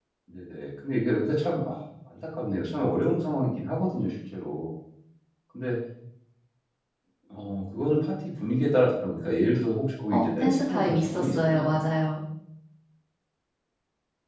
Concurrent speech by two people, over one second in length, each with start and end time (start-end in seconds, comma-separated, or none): 10.1-11.8